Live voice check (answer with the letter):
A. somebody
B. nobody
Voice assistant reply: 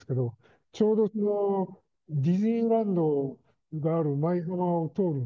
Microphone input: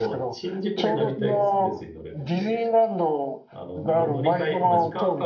A